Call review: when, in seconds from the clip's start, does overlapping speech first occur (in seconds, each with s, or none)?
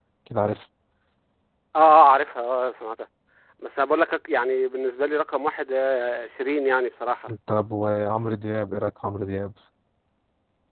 none